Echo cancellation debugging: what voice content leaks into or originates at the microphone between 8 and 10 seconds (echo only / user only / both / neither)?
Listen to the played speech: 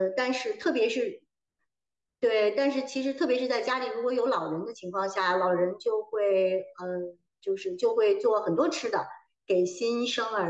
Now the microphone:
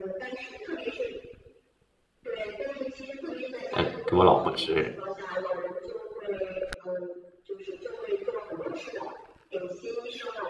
echo only